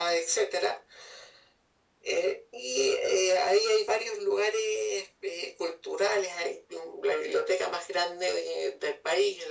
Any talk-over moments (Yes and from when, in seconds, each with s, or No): No